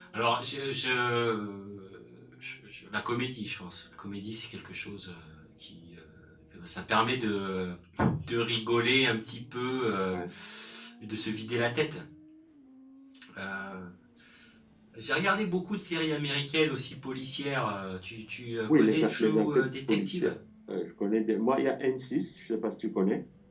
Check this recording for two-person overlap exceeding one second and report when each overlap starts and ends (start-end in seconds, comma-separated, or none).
18.7-20.3